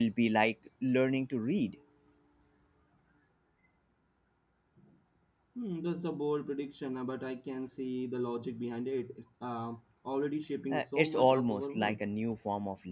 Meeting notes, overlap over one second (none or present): present